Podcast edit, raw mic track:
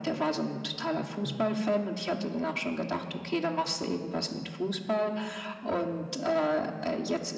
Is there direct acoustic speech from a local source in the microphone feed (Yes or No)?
Yes